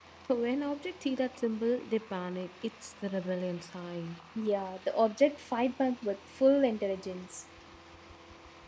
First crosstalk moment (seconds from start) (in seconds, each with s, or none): none